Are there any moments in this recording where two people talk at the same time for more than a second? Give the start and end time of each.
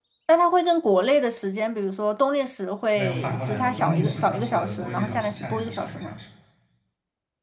3.0-6.1

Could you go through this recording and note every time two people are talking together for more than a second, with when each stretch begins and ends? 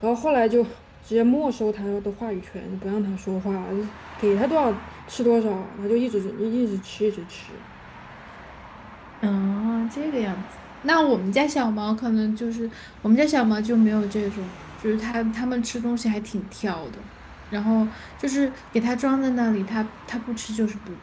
none

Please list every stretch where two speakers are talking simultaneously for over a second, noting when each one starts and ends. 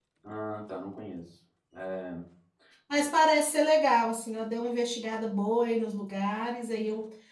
none

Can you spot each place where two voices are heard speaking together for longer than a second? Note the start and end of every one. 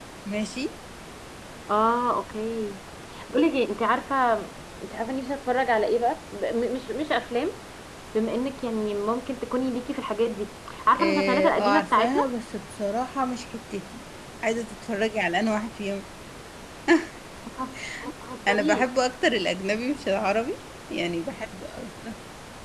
10.9-12.2

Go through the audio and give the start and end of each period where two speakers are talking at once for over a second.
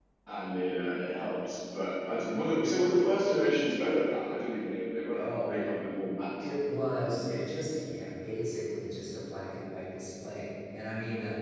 none

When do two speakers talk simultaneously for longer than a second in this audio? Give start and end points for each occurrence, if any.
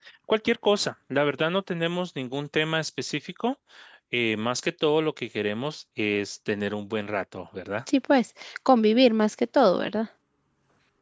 none

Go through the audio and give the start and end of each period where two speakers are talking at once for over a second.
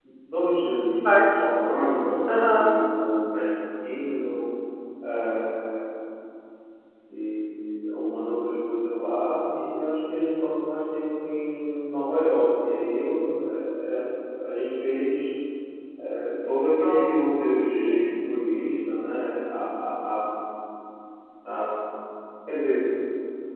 none

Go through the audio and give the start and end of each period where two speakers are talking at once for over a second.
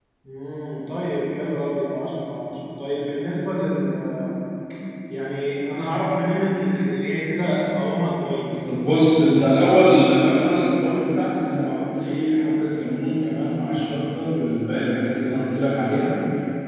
none

